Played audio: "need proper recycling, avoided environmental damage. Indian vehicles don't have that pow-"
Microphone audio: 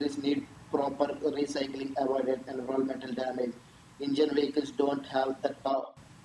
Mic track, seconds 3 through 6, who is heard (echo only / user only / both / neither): echo only